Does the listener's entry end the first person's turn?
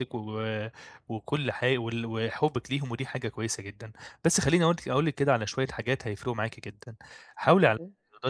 No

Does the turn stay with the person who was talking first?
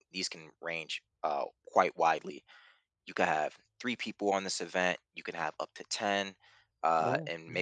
Yes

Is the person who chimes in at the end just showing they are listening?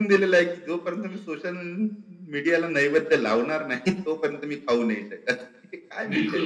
No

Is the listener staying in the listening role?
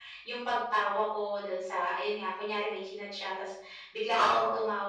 Yes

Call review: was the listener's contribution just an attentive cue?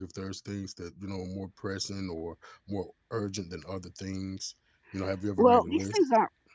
No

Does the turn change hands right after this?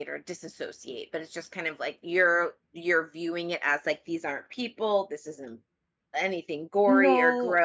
No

